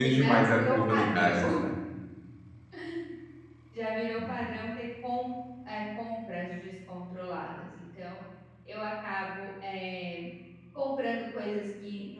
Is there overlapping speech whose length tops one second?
Yes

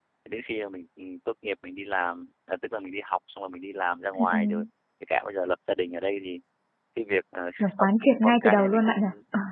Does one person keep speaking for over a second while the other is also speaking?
Yes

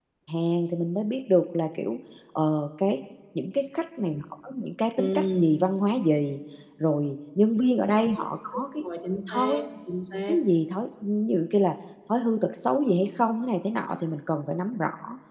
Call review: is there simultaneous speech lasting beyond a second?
No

